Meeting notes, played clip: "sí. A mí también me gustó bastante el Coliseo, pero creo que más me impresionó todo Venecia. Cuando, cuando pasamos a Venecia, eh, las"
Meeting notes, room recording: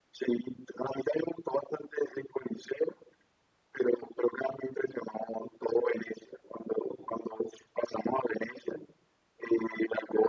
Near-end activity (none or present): none